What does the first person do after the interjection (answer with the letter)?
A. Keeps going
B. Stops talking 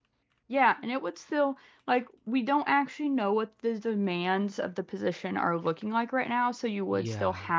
A